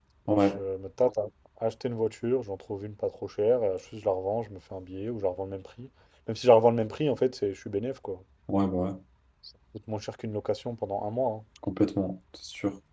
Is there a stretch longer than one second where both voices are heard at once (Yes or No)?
No